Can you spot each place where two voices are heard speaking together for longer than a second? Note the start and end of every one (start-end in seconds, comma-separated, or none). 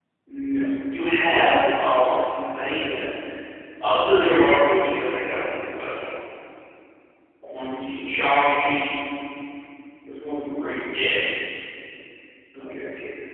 none